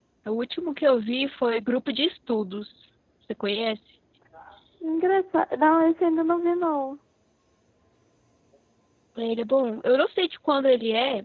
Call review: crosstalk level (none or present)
none